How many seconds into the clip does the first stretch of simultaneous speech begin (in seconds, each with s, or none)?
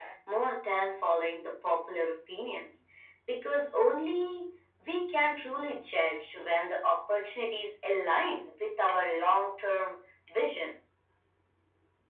none